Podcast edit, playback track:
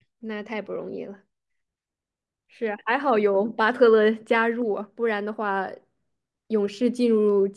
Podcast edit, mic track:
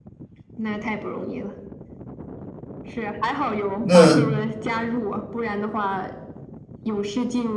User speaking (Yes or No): Yes